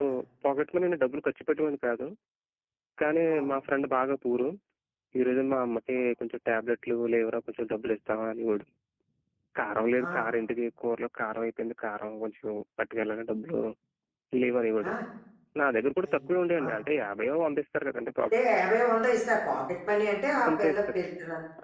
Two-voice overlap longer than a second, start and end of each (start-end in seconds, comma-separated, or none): none